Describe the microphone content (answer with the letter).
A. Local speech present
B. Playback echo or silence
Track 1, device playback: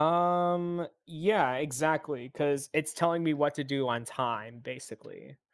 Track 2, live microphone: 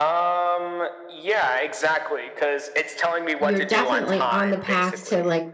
A